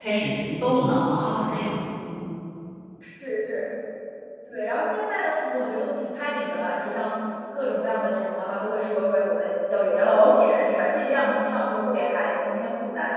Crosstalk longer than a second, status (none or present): none